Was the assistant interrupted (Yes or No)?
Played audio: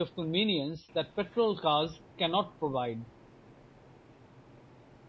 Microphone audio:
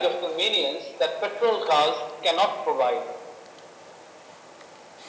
No